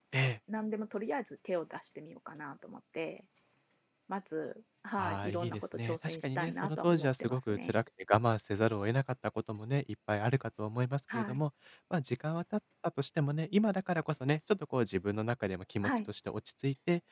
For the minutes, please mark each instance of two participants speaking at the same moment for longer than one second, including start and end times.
5.0-7.7

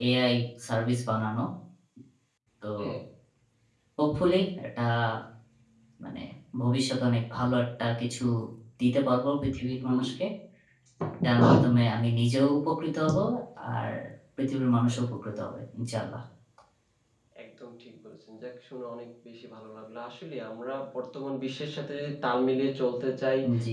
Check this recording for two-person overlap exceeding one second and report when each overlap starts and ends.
none

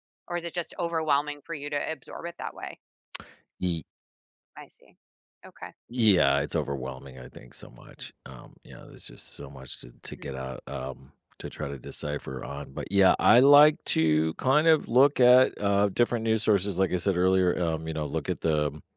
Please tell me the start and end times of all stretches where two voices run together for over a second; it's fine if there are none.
none

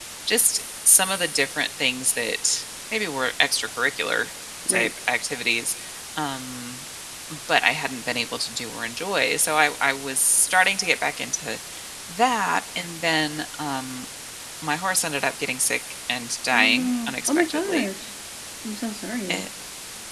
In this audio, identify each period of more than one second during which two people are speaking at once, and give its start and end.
16.5-17.9

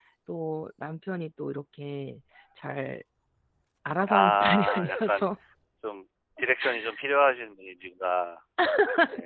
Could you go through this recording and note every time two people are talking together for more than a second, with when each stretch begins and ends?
4.1-5.3

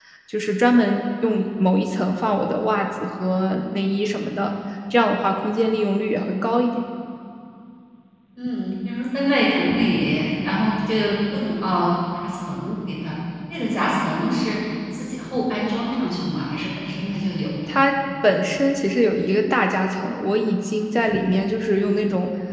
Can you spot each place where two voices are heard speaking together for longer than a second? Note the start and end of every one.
none

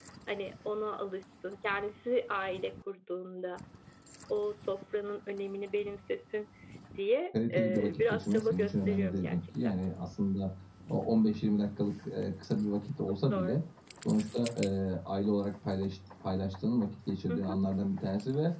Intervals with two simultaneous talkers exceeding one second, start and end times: 7.5-9.8

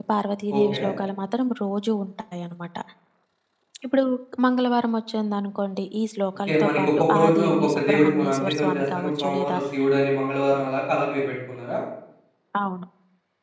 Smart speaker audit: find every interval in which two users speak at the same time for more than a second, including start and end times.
6.5-9.6

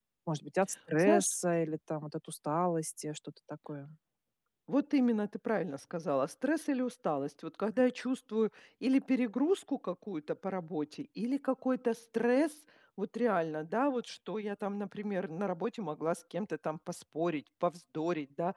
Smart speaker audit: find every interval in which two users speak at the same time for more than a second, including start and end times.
none

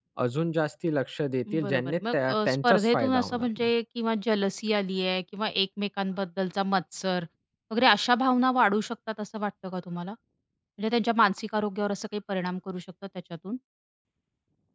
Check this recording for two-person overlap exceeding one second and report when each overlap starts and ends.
1.6-3.7

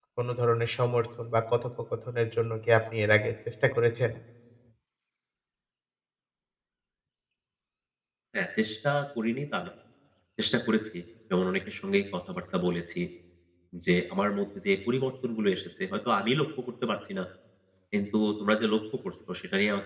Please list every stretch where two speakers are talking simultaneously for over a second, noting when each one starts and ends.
none

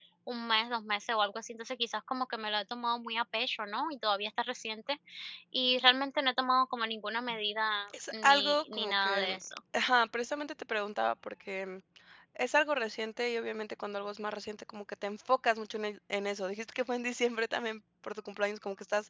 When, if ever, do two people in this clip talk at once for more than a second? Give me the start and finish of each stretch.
8.1-9.4

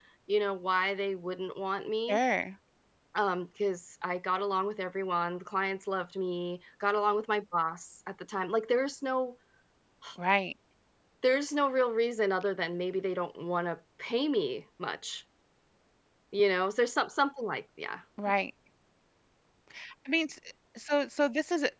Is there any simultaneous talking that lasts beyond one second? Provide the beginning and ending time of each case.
none

